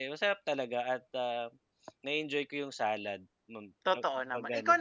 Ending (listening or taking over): taking over